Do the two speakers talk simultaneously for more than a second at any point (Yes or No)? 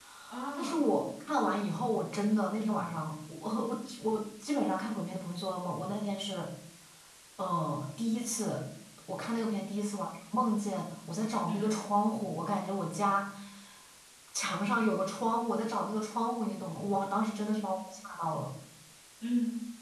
No